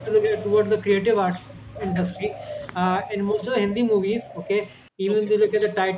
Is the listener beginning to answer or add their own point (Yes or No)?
No